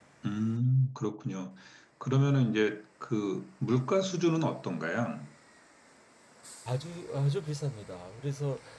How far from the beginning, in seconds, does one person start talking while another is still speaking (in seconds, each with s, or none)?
none